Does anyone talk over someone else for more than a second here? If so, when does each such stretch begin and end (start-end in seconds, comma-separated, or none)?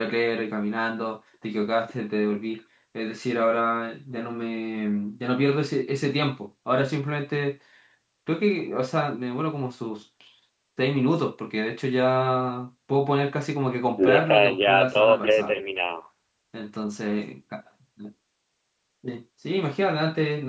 14.0-15.6